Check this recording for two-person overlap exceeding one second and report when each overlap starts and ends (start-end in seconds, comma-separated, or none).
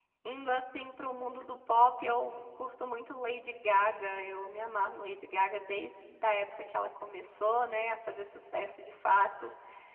none